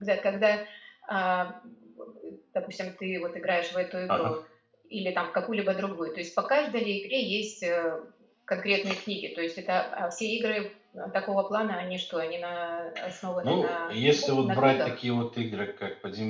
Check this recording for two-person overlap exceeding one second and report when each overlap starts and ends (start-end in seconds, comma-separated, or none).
13.4-15.0